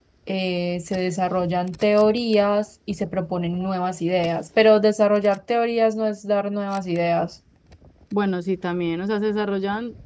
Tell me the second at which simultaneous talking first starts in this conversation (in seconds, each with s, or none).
none